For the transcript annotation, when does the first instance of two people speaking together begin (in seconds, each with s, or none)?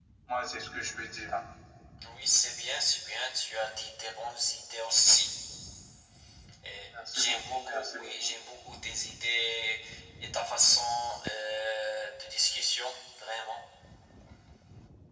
6.9 s